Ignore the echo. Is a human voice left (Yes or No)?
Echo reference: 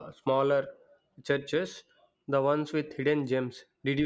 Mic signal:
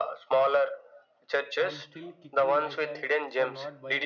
Yes